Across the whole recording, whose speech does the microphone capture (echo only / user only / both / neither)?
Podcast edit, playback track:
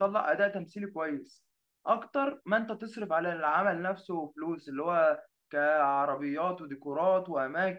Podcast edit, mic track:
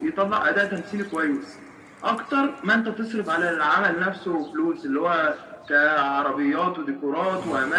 echo only